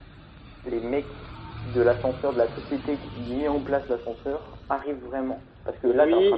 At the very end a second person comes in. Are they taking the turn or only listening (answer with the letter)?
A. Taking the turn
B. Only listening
A